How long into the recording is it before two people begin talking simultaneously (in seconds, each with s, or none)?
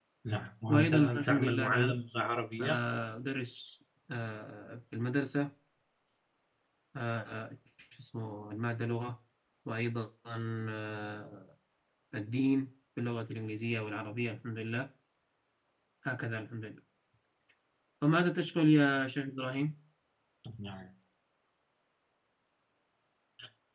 0.7 s